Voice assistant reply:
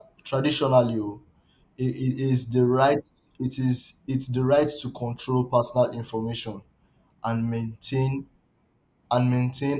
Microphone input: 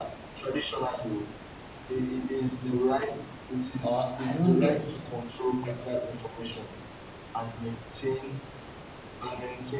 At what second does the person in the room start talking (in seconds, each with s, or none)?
3.8 s